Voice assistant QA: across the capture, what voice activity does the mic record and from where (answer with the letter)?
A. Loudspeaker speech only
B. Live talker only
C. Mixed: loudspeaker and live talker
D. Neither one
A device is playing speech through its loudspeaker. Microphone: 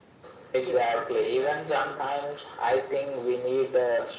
C